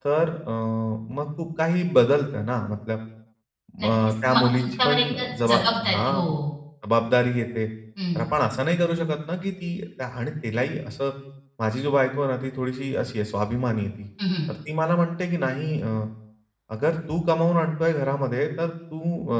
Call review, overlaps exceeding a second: present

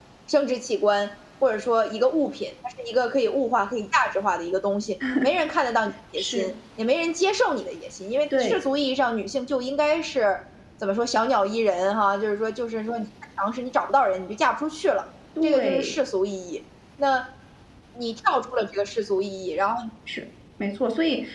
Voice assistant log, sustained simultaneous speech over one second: none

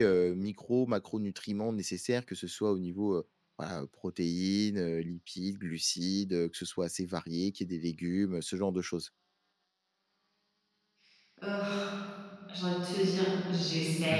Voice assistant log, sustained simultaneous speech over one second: none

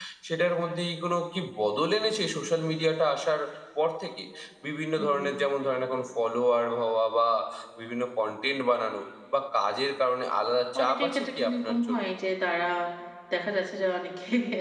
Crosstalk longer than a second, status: present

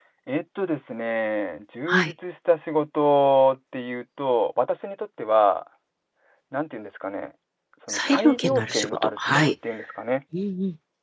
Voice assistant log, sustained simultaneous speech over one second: present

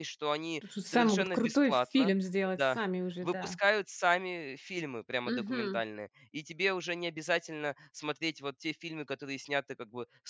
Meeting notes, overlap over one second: present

